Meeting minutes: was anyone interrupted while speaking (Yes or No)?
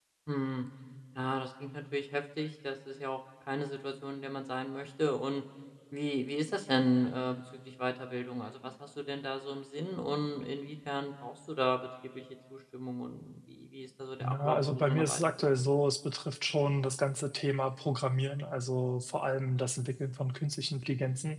Yes